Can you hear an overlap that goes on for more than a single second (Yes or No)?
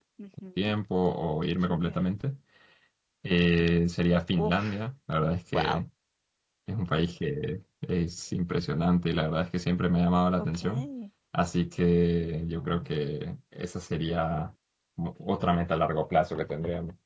No